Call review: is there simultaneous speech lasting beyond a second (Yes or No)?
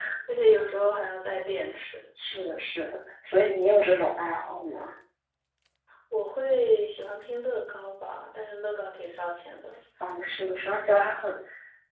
No